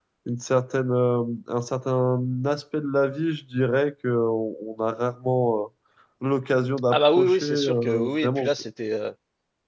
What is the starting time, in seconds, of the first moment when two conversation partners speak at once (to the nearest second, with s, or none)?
7 s